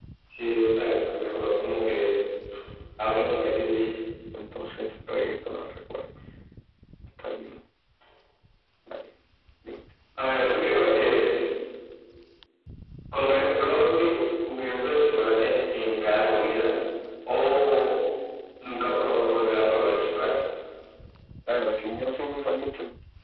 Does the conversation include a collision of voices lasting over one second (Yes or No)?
No